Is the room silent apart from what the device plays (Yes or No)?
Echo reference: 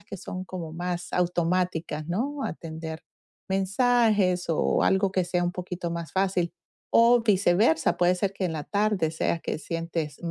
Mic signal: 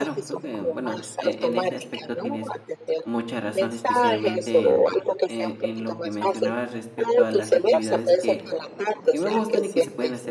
No